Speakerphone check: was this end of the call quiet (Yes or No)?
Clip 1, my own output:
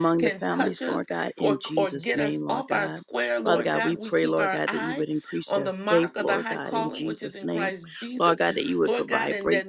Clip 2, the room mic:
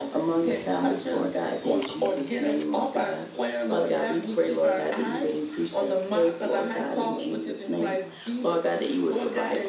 Yes